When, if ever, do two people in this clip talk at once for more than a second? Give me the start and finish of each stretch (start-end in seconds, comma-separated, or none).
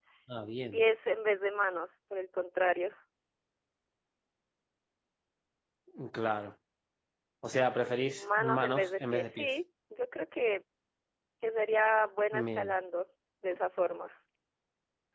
8.1-9.5